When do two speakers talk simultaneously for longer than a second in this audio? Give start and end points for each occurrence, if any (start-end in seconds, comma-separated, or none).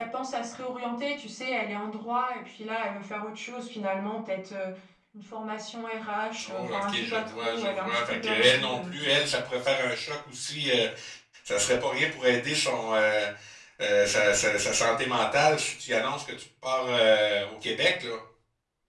6.5-8.9